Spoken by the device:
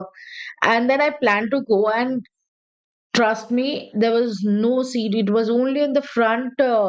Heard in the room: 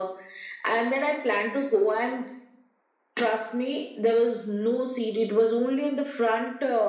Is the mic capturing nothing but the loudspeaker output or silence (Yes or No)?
Yes